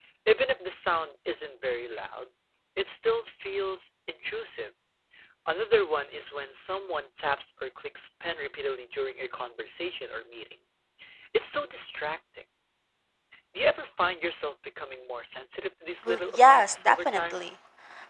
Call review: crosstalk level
present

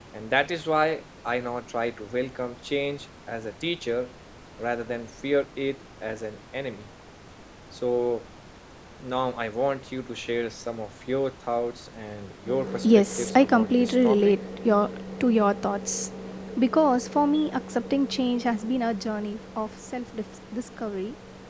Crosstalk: present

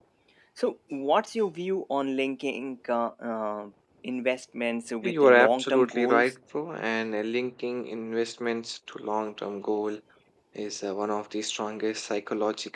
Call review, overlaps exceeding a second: present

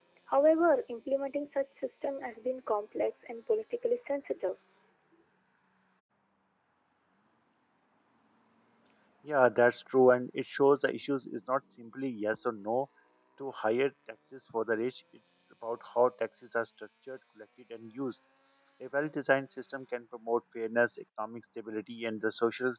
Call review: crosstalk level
none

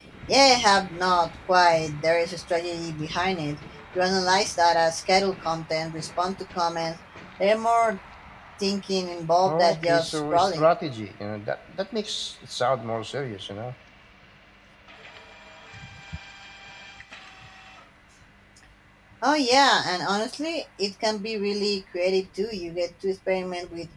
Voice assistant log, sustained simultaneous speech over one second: present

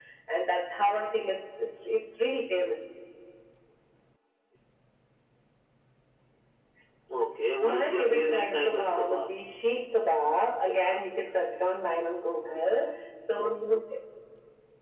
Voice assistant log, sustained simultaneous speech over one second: present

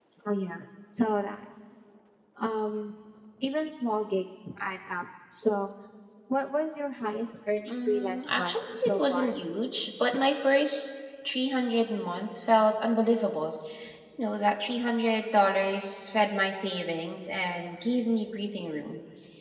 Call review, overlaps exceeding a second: present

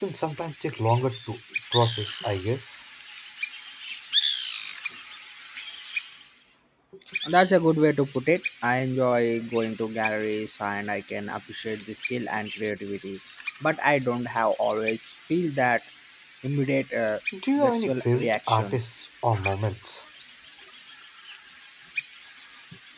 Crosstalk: present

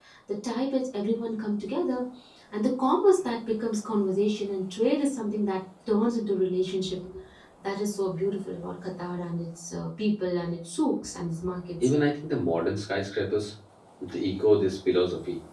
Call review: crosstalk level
none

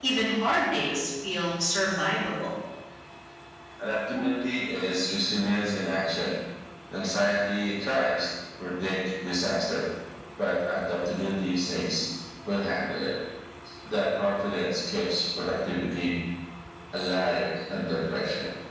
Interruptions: none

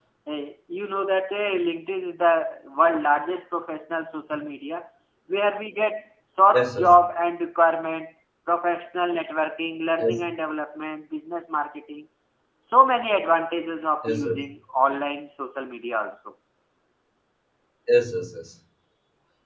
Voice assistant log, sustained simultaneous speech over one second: none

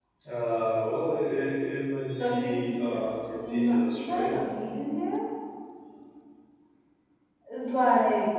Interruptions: present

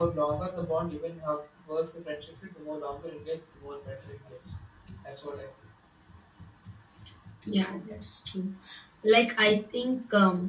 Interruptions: none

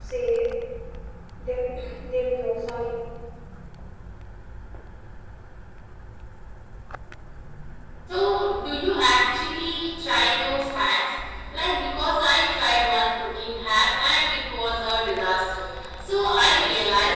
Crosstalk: none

